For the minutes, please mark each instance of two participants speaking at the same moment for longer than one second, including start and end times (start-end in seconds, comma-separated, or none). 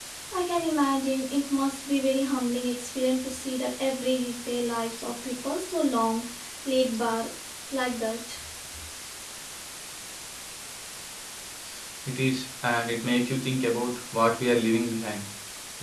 none